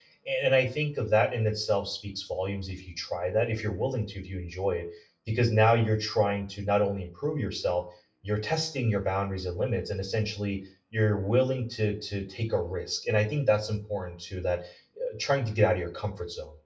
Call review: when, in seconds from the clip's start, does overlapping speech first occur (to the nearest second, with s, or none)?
none